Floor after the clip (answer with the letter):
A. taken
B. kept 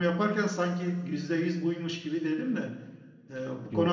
B